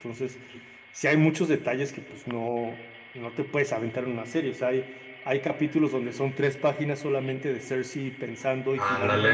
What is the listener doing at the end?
listening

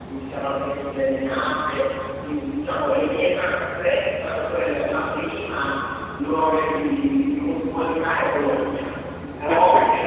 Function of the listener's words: listening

